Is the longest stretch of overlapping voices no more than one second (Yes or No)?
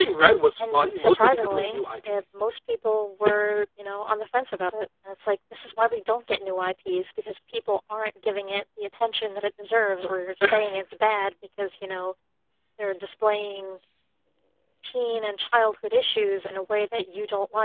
No